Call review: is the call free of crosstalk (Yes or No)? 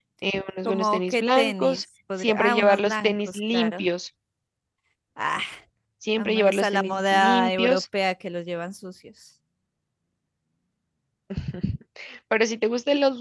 No